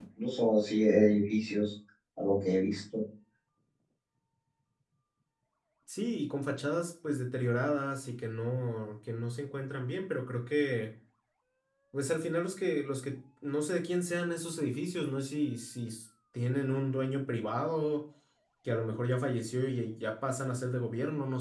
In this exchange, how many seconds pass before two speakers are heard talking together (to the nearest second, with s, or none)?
none